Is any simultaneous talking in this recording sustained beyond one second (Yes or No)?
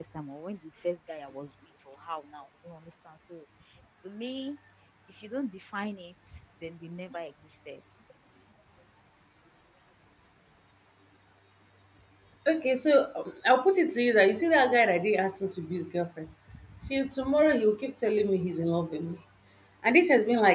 No